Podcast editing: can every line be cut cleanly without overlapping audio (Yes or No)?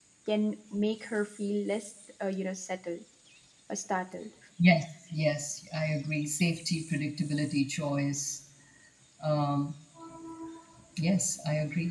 Yes